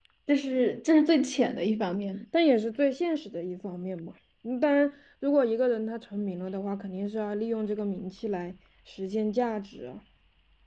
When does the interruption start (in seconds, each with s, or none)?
none